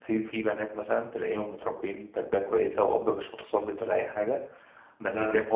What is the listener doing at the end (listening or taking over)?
listening